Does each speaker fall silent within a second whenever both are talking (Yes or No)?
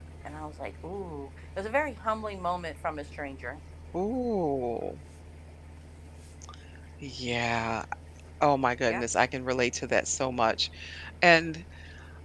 Yes